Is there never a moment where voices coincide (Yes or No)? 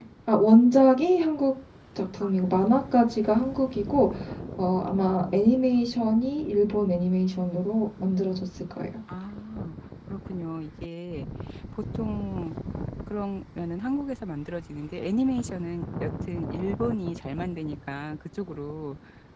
Yes